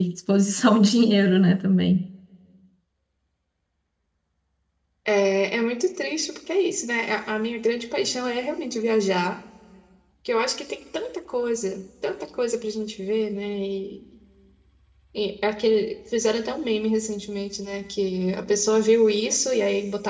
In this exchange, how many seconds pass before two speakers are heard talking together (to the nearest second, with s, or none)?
none